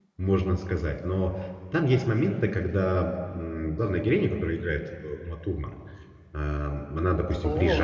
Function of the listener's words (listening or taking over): listening